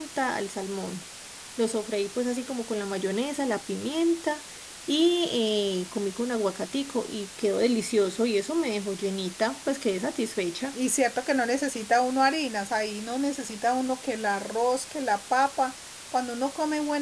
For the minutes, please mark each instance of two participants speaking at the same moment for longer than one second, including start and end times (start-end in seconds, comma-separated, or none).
none